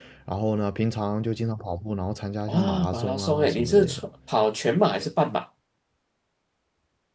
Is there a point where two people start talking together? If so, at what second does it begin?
2 s

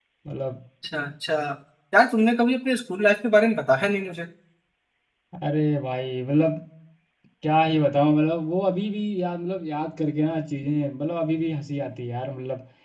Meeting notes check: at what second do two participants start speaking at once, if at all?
none

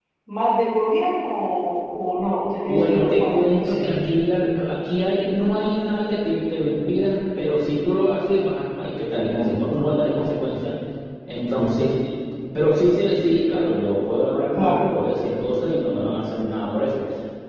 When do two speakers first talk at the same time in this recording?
3 s

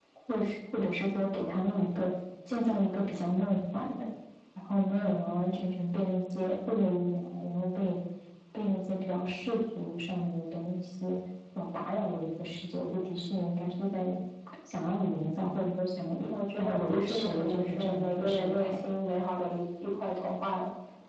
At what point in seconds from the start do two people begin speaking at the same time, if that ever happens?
17 s

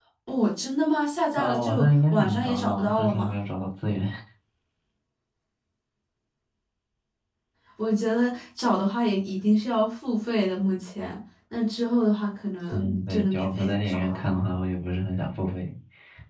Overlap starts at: 1 s

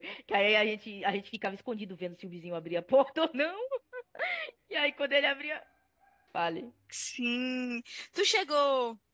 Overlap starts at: none

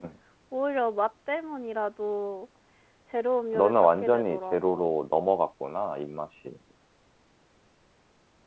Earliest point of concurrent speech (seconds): 4 s

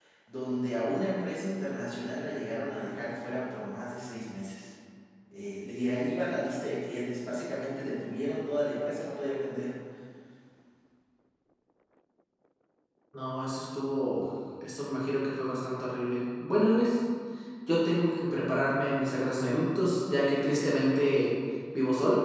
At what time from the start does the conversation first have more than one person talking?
none

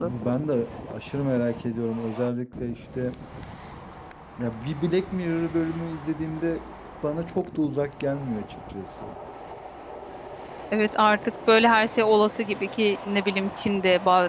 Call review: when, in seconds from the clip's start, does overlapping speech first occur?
none

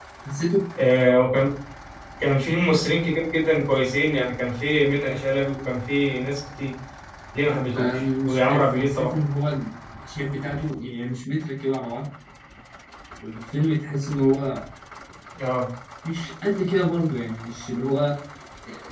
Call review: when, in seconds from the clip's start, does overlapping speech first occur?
8 s

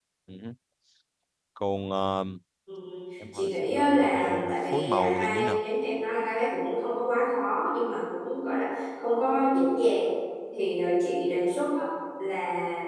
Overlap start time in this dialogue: 3 s

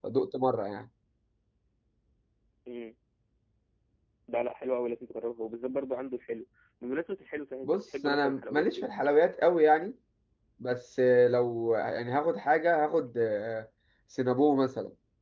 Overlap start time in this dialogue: 8 s

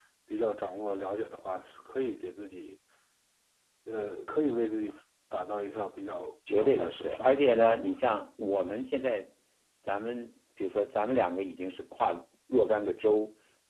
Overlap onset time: 6 s

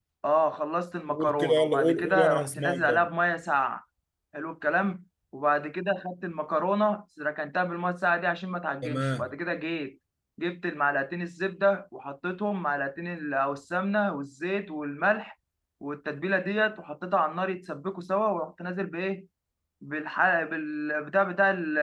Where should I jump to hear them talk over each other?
1 s

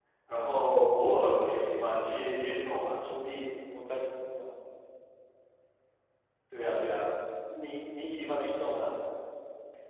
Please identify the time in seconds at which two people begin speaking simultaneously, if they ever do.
none

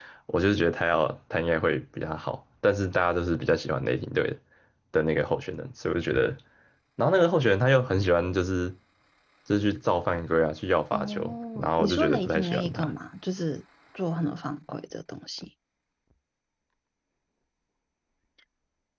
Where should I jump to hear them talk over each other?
11 s

